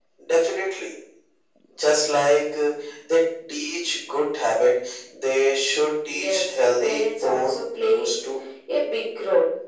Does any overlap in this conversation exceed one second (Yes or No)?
Yes